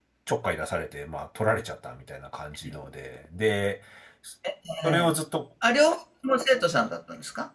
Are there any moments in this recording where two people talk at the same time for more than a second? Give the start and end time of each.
none

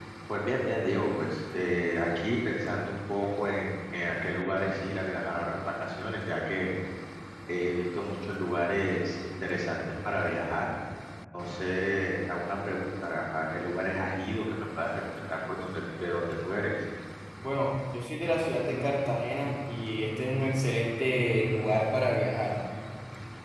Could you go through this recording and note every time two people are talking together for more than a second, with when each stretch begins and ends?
none

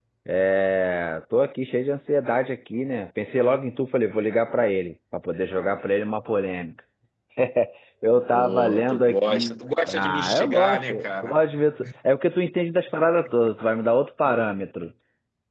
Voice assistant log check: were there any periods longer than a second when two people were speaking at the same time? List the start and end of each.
8.3-11.3

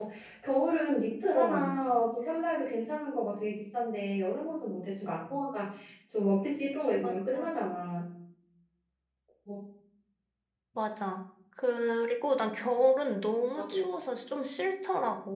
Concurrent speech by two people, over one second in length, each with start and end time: none

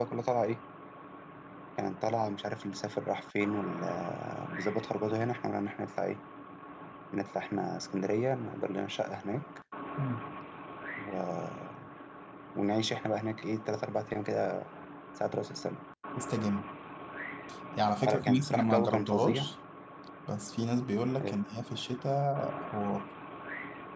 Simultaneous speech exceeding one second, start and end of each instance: 18.0-19.5

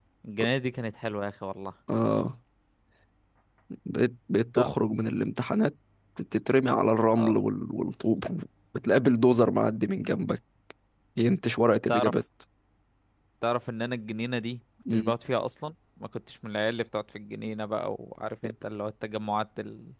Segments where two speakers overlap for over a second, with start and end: none

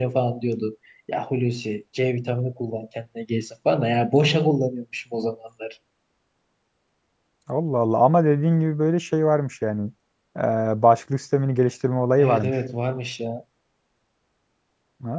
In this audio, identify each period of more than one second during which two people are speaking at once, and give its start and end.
none

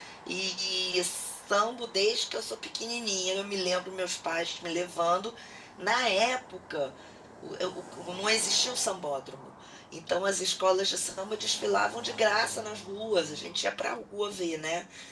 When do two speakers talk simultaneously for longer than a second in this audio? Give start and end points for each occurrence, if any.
none

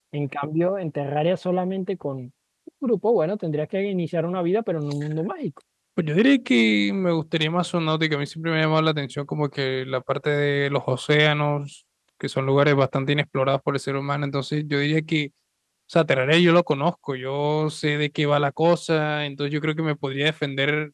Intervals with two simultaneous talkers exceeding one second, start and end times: none

